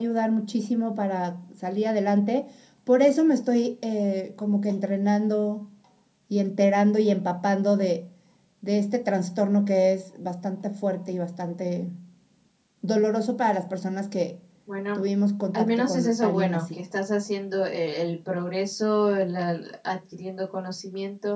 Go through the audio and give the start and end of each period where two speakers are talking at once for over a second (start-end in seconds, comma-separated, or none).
15.5-16.7